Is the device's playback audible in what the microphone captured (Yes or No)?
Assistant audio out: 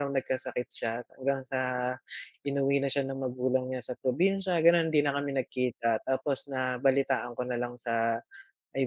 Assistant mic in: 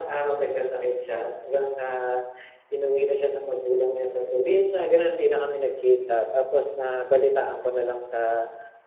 Yes